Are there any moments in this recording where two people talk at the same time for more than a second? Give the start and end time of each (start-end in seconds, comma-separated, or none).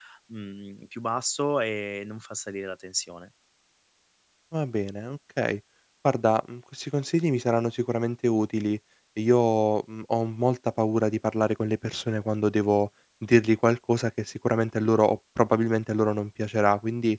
none